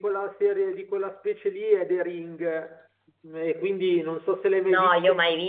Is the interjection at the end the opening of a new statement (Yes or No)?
Yes